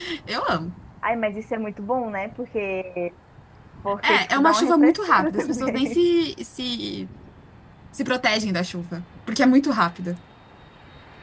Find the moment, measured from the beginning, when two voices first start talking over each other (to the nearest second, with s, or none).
4 s